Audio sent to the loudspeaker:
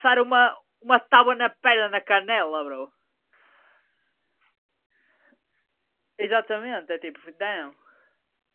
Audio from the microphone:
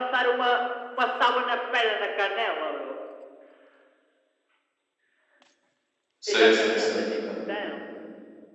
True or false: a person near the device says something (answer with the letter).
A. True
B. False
A